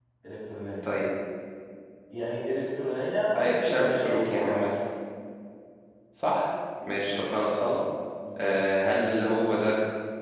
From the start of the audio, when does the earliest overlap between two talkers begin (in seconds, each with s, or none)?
3.4 s